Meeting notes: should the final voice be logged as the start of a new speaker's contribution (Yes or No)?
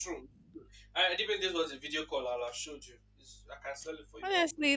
Yes